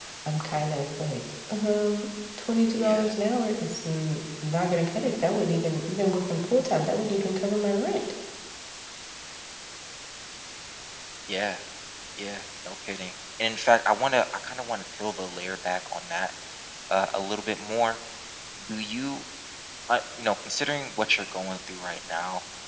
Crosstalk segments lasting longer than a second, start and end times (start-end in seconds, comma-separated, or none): none